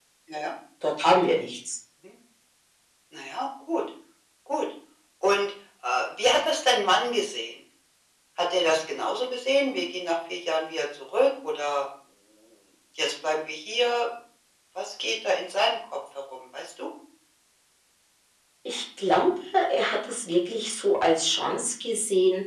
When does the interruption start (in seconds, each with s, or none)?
none